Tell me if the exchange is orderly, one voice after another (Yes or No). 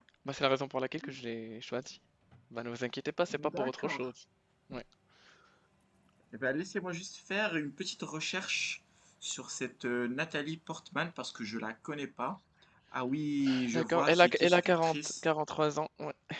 No